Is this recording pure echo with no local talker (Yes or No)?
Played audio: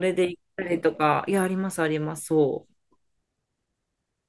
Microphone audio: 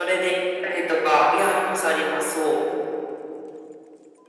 Yes